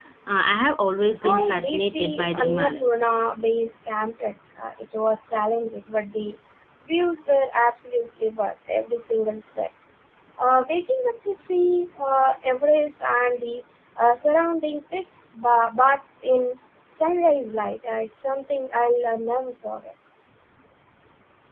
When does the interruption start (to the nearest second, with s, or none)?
1 s